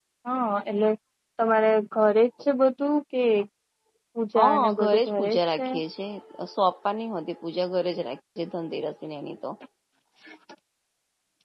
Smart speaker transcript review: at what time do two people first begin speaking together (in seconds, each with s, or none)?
4.4 s